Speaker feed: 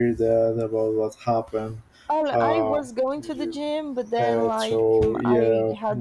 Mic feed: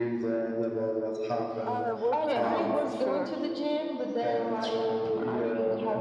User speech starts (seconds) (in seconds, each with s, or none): 1.6 s